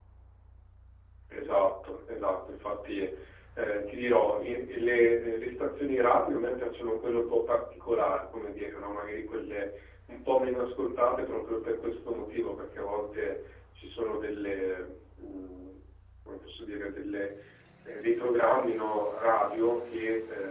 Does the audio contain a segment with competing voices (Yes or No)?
No